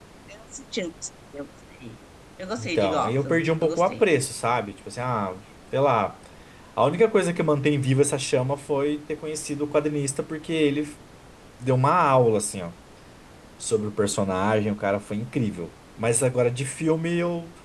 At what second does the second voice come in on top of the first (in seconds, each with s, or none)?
2.6 s